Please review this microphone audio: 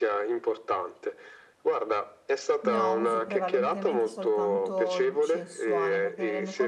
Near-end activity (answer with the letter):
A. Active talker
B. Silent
A